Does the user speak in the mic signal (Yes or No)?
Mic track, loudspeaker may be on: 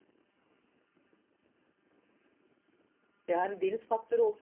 Yes